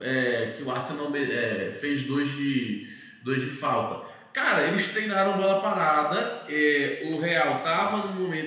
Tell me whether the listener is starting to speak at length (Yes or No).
No